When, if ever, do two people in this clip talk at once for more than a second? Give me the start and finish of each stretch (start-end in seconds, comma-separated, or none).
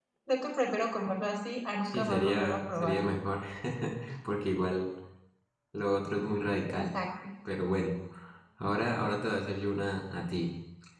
1.8-3.2